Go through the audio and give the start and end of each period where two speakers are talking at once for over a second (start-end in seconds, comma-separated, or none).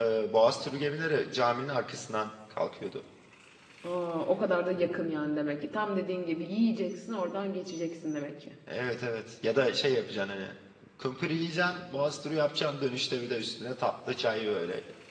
none